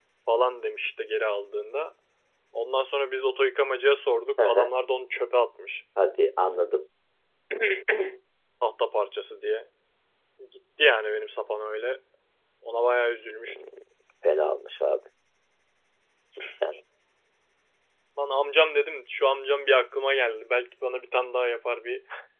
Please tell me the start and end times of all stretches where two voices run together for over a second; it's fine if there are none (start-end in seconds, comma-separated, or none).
none